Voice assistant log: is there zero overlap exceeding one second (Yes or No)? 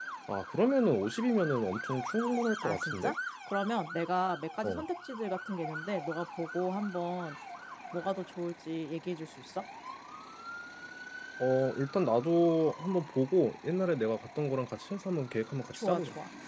Yes